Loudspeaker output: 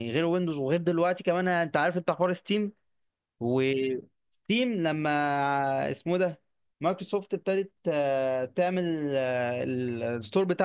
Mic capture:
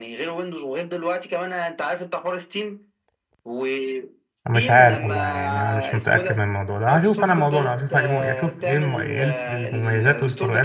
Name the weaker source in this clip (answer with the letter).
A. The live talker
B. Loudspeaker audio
B